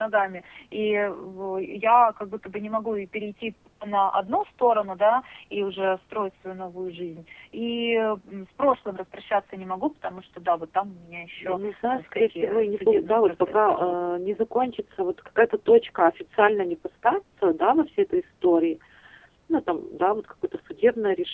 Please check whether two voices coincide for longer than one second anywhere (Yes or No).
Yes